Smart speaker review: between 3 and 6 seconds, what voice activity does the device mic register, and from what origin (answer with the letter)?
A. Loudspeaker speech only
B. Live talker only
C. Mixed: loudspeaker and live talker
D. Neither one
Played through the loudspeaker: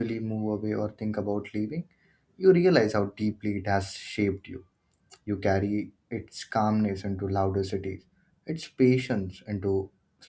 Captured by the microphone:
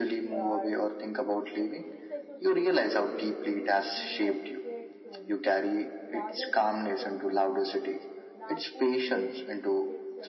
C